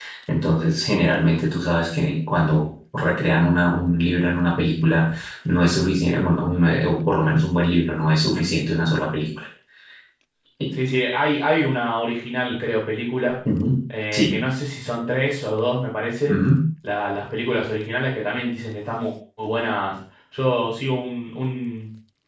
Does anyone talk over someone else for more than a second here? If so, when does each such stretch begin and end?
none

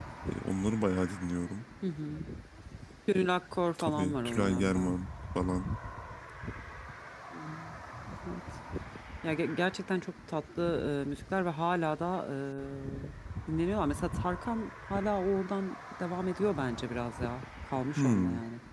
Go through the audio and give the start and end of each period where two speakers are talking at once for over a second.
3.8-5.0

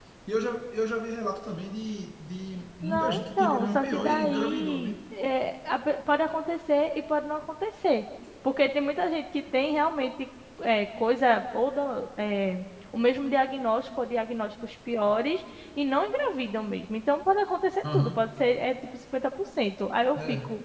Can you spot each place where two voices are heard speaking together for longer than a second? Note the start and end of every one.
2.8-5.0

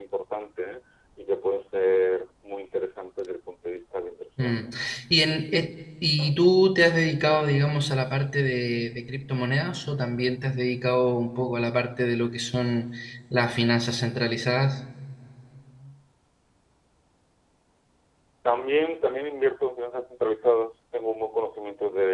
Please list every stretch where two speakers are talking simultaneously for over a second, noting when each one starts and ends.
none

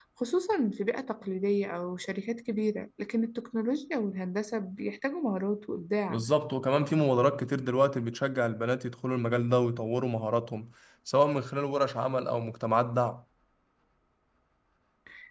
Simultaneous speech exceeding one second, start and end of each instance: none

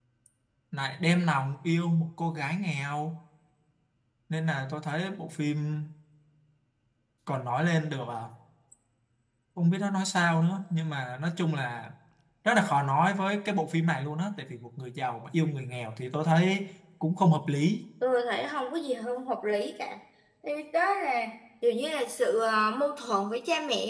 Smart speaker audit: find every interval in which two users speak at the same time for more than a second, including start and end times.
none

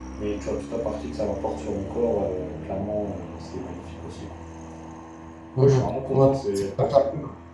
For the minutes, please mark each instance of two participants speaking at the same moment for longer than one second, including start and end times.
5.6-7.0

